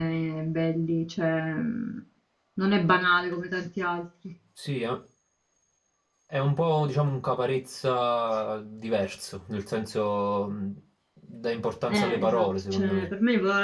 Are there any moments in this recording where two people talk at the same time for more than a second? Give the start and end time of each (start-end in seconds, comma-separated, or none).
11.9-13.1